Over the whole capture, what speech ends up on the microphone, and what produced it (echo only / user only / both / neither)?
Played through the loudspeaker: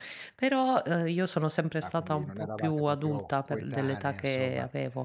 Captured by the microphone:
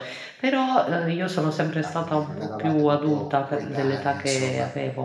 echo only